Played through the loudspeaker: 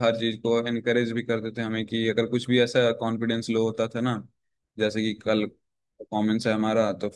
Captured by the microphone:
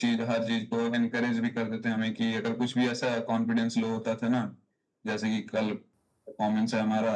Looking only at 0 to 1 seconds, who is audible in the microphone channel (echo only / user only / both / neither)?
echo only